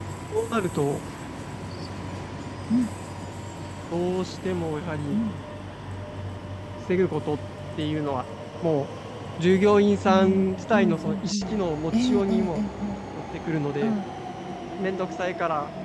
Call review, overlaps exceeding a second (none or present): present